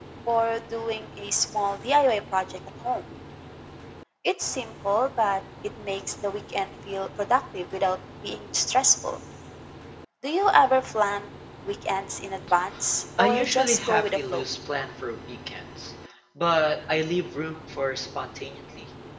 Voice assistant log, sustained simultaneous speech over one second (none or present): present